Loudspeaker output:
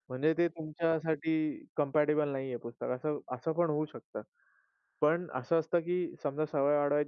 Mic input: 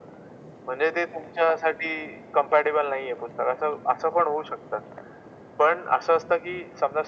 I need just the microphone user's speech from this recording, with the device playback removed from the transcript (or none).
none